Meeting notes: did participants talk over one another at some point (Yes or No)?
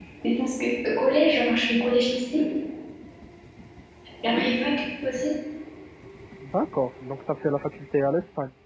No